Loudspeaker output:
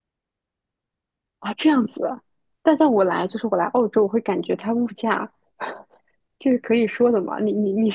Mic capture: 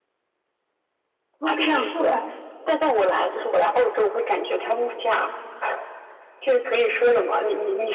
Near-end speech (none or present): present